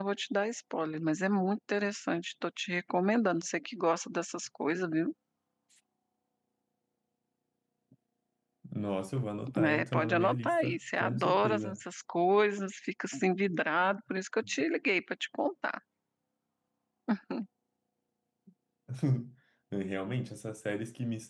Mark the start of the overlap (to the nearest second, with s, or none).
9 s